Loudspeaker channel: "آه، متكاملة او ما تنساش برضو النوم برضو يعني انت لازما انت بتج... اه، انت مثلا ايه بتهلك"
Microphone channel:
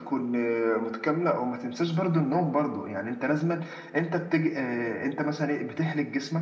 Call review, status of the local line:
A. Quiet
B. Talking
A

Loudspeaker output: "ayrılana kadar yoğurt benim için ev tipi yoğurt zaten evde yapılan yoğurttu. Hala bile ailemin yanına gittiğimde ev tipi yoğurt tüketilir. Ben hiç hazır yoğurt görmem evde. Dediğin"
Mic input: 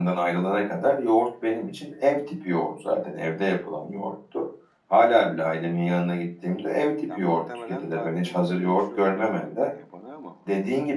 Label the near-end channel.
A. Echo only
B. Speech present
B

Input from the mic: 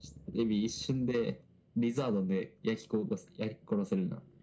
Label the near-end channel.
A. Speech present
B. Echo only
B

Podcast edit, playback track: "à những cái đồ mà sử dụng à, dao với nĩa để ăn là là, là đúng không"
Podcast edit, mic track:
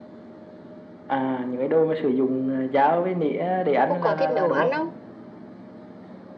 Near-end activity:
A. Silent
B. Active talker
B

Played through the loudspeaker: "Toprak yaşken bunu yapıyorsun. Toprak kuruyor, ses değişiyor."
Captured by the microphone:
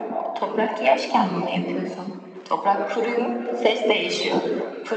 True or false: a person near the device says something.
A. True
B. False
B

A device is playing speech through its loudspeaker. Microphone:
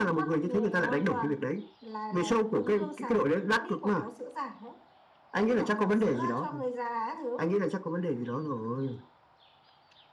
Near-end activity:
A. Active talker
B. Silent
B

